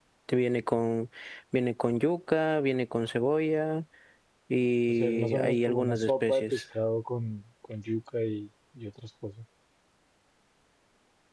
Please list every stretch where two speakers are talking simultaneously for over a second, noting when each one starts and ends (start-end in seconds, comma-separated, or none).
4.9-6.6